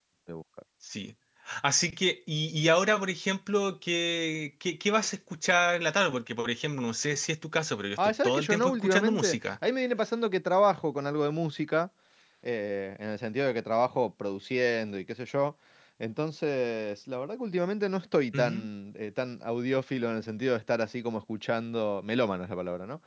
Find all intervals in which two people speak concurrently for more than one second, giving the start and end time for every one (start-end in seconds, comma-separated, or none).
8.0-9.6